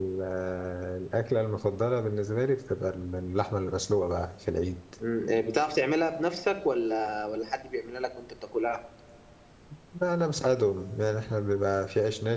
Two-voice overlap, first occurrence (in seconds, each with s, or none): none